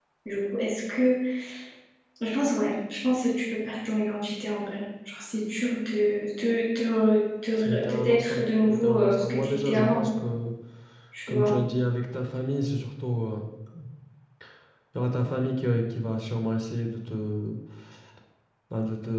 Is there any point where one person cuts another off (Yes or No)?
Yes